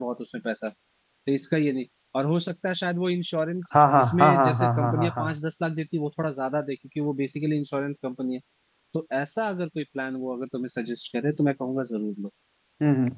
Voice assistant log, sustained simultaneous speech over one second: present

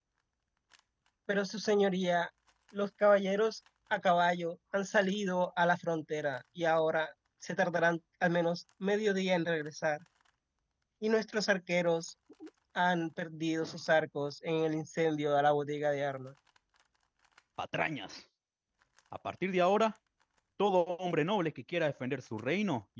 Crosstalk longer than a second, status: none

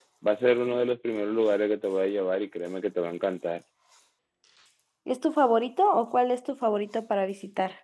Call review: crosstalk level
none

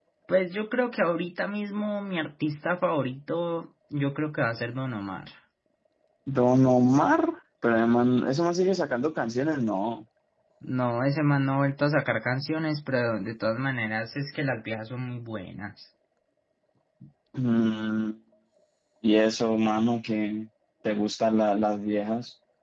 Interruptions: none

